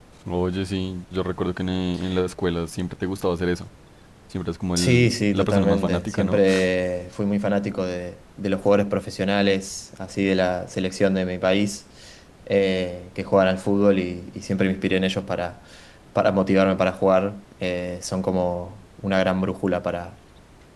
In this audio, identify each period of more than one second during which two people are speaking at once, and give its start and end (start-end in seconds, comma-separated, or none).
4.8-6.4